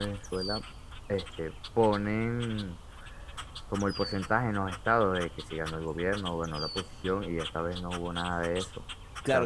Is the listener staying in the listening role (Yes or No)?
No